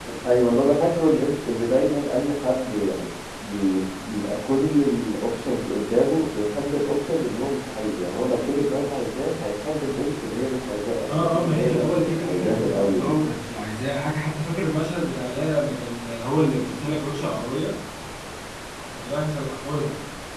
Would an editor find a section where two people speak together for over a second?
Yes, from 11.1 s

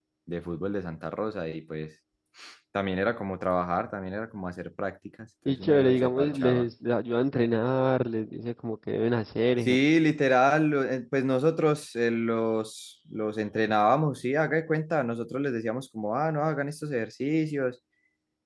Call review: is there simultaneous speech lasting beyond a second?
Yes, from 5.4 s

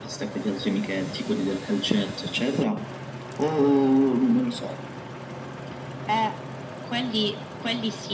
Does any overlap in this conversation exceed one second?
No

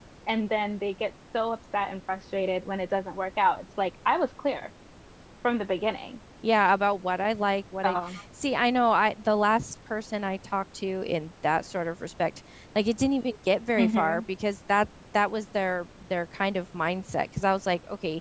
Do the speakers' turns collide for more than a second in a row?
No

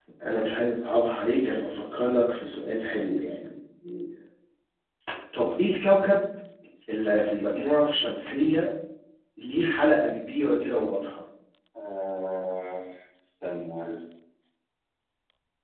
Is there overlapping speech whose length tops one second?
No

